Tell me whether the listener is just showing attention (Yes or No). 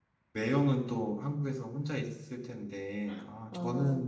Yes